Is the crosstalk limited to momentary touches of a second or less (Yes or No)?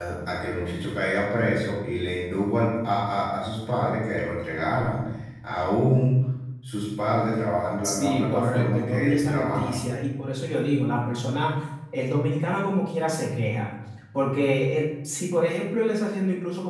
No